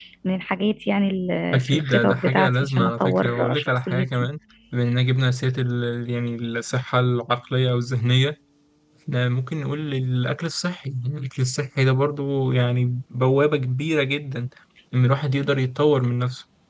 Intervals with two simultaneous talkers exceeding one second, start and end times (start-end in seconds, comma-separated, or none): 1.5-4.3